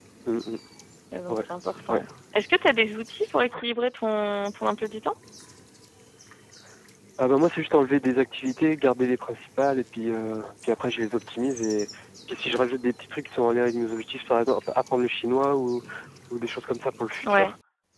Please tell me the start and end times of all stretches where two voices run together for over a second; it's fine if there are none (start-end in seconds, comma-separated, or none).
none